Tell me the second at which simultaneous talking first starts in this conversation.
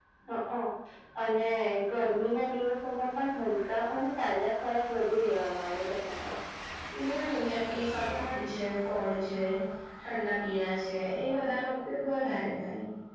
none

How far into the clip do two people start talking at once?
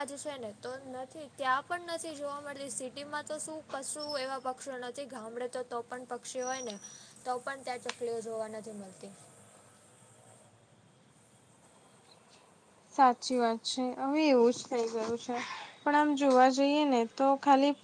none

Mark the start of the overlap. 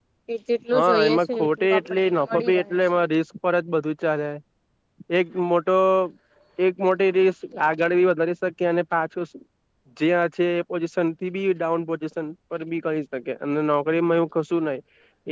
0.8 s

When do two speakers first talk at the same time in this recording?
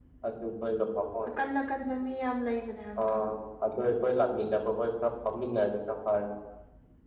none

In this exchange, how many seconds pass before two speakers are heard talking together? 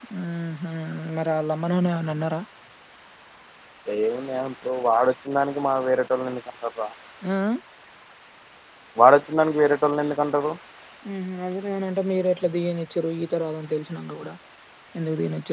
none

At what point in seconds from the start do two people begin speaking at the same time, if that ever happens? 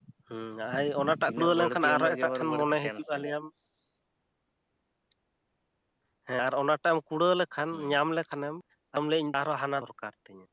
1.2 s

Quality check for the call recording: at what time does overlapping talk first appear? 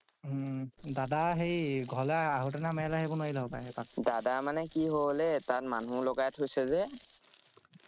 none

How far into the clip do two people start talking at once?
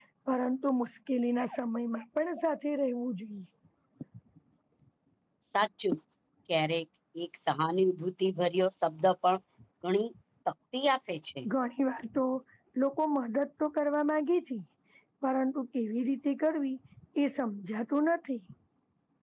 none

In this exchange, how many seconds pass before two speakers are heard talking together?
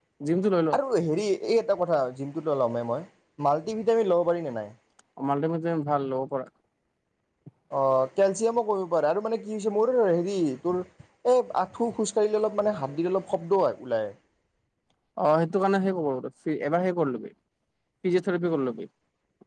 none

